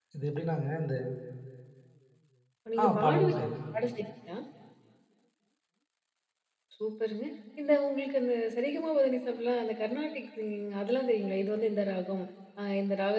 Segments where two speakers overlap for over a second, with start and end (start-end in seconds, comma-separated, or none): none